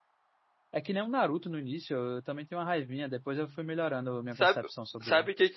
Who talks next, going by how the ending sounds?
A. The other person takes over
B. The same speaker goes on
A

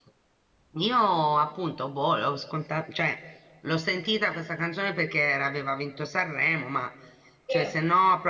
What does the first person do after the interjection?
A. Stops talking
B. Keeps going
B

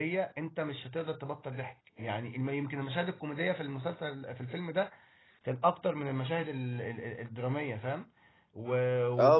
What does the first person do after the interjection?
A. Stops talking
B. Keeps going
A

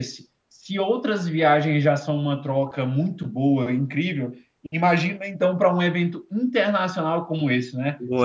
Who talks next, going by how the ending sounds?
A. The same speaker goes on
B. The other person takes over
A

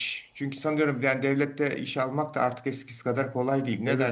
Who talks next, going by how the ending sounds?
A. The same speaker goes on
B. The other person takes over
B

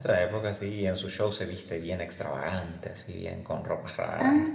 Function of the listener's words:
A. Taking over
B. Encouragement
A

